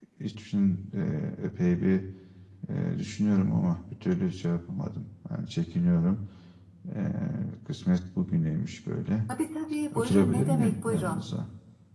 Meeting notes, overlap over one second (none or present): present